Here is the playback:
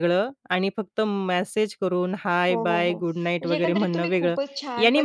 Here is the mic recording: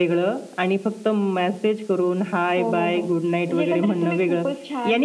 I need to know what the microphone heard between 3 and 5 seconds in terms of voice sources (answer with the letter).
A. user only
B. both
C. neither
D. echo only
D